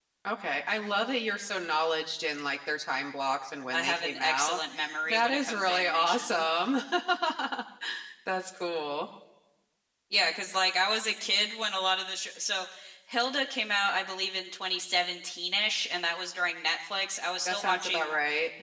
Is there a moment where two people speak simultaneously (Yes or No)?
Yes